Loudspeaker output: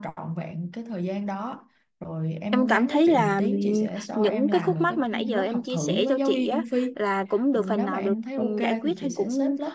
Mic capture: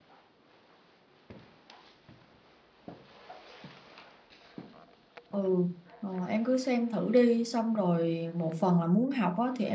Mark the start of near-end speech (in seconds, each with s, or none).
5.3 s